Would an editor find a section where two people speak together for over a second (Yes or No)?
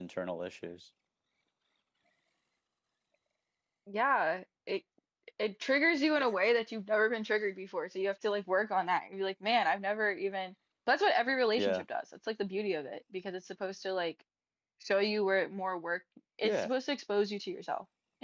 No